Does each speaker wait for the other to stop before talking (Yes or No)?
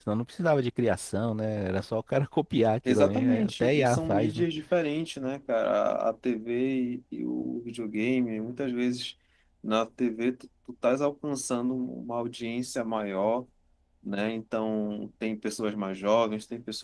No